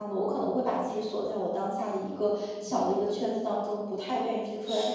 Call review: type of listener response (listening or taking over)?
listening